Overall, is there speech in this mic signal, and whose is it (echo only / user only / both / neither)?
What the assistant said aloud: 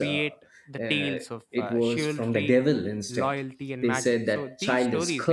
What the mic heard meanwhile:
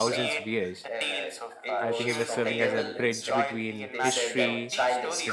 both